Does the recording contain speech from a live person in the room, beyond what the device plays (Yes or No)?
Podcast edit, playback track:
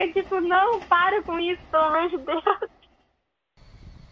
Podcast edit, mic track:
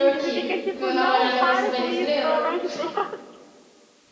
Yes